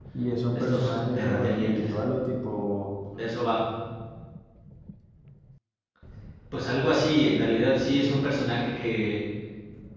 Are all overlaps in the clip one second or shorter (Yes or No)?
No